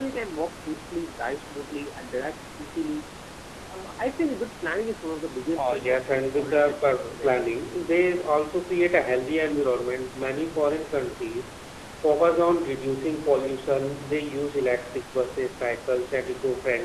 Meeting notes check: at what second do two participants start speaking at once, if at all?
6 s

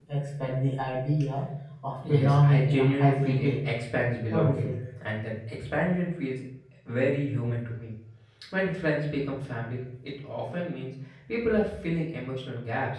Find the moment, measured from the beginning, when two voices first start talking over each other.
2 s

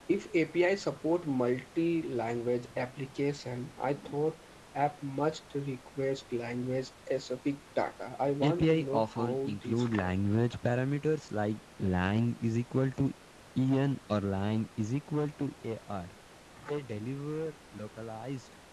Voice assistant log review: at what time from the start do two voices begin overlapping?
8 s

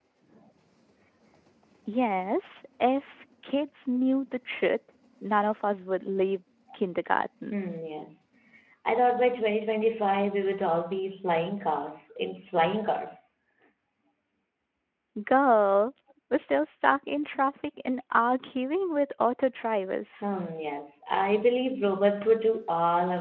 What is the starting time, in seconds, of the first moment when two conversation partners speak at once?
none

